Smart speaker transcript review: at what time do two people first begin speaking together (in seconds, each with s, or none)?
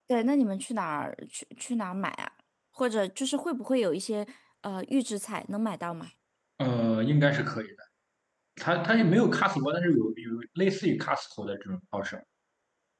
none